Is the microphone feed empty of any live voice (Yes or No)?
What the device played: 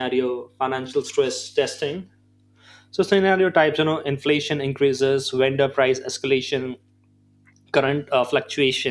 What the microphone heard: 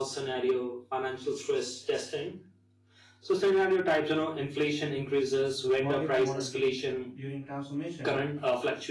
No